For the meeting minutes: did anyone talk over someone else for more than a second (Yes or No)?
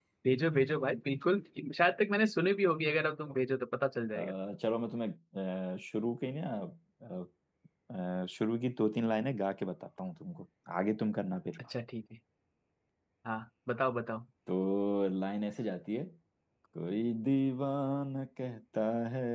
No